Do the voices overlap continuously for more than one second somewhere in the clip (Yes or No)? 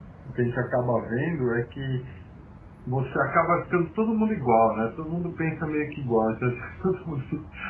No